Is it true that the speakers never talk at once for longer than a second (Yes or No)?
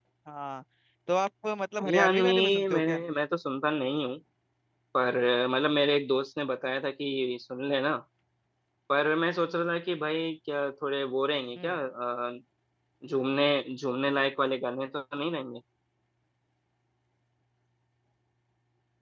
No